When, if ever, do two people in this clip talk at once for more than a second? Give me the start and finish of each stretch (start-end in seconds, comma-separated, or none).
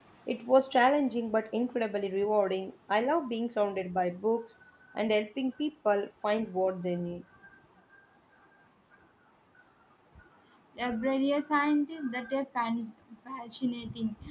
none